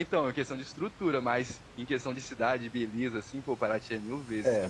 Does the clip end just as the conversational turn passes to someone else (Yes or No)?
Yes